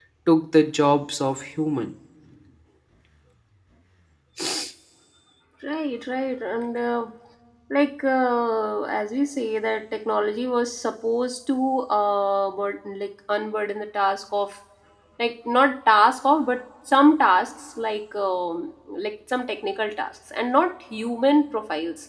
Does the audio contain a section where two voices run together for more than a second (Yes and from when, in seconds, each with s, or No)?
No